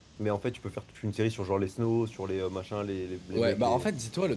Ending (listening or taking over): taking over